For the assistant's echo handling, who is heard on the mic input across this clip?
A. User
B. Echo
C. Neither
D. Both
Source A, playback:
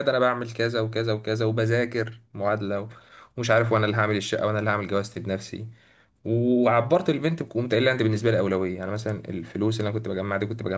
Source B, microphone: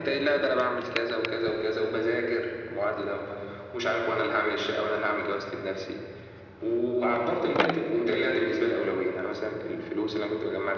B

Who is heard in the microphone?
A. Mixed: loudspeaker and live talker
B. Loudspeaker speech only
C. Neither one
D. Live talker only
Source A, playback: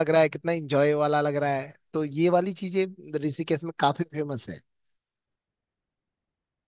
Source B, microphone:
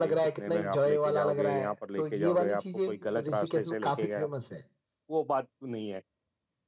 A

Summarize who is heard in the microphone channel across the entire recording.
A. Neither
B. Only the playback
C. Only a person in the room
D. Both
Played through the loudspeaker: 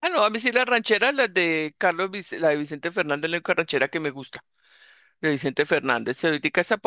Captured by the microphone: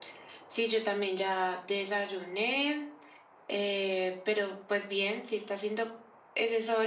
C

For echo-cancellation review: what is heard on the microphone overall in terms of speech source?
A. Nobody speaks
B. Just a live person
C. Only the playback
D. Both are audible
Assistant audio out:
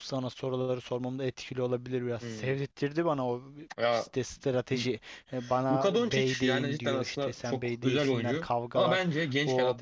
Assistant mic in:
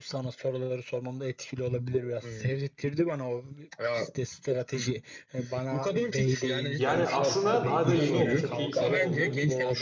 D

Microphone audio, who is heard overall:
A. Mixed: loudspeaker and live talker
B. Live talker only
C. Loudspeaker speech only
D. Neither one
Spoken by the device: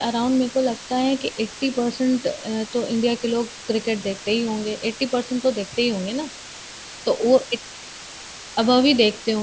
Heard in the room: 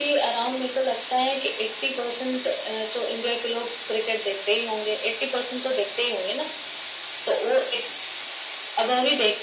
C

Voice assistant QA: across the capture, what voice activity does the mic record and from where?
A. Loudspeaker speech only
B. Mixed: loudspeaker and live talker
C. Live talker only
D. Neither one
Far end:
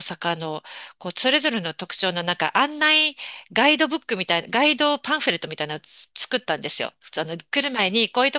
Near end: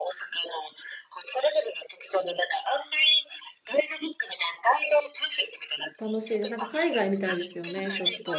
B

